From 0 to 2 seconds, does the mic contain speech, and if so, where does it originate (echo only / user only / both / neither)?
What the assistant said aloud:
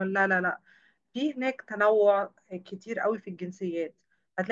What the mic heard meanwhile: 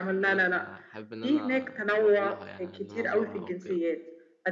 both